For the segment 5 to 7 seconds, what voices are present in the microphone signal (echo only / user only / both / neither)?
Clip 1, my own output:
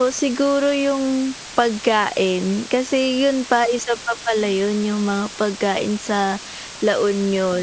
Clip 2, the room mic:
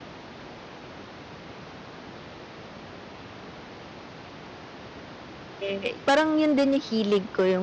user only